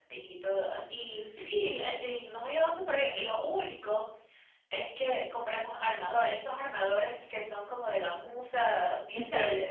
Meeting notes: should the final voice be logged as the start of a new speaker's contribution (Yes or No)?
Yes